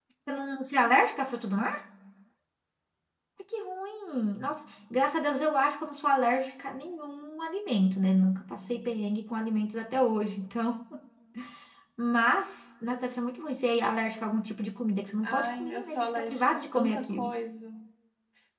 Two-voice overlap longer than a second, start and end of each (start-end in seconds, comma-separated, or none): 15.2-17.3